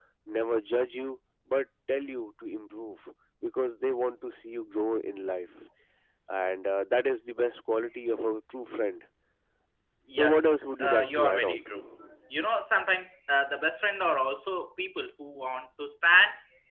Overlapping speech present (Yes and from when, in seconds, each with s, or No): Yes, from 10.2 s